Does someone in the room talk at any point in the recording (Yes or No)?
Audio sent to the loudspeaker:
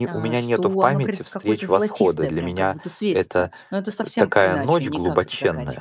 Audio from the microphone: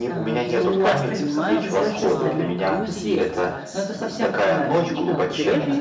Yes